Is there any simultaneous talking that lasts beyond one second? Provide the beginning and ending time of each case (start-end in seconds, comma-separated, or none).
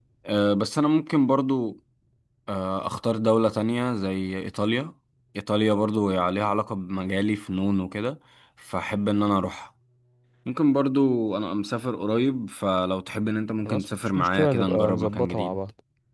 13.6-15.6